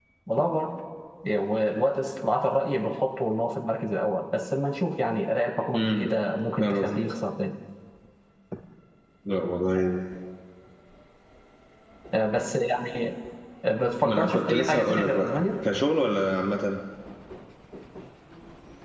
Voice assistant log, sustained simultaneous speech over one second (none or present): present